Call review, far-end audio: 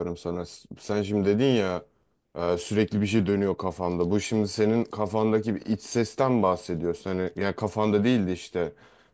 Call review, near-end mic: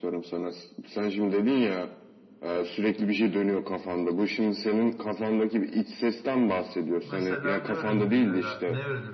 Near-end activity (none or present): present